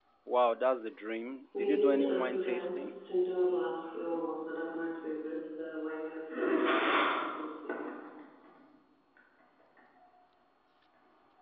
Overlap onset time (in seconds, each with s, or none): 1.5 s